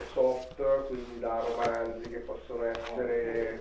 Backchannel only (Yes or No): Yes